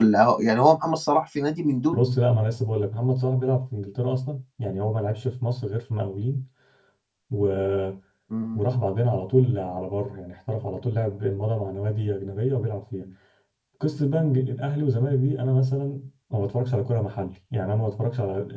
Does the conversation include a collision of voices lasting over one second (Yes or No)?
No